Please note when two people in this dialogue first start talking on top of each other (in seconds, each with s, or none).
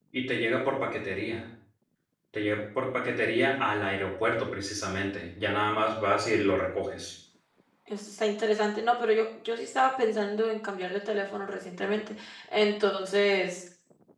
none